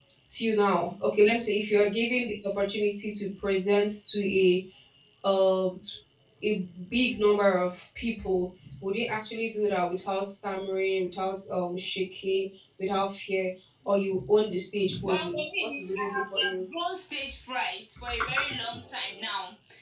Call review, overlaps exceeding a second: present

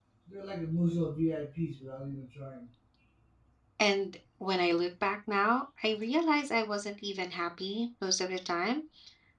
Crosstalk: none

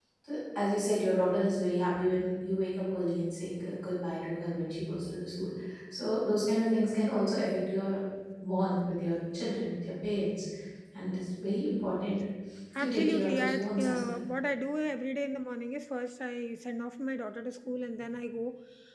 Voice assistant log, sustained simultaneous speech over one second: present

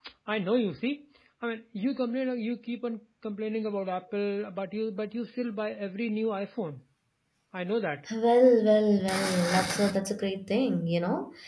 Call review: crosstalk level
none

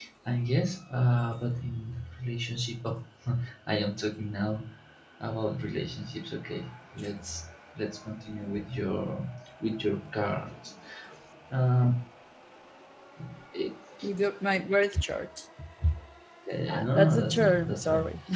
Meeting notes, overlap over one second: present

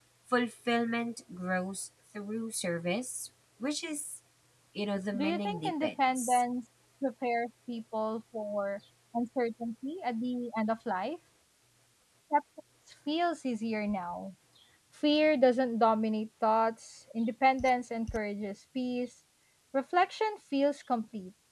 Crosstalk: present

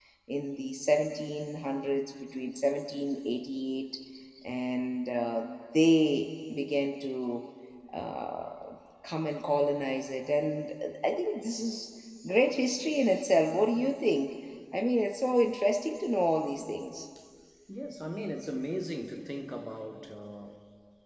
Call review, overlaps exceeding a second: none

